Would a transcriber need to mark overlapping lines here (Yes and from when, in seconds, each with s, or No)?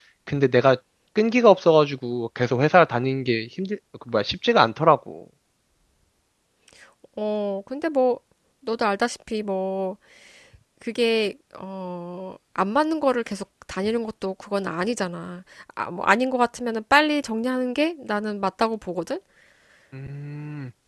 No